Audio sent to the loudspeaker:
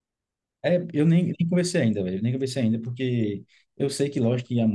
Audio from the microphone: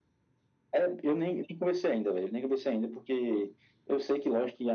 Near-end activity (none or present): none